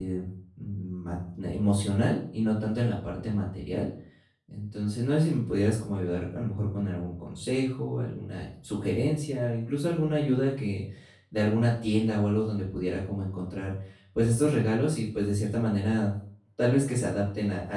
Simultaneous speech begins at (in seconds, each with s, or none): none